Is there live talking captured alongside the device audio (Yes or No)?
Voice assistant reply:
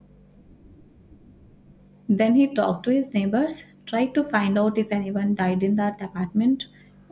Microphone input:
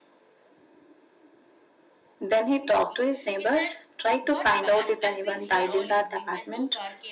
Yes